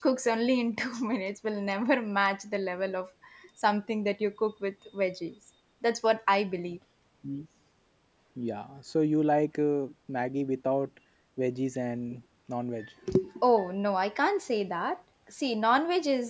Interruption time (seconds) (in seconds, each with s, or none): none